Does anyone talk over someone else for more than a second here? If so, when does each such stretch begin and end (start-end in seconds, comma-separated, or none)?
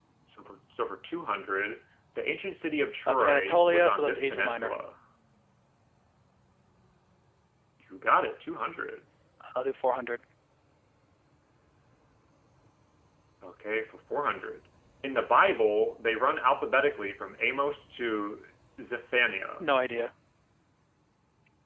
3.1-4.7